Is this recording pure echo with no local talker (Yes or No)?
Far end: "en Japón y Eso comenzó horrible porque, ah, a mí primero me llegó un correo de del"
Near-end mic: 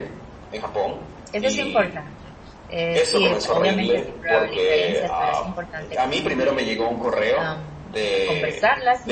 No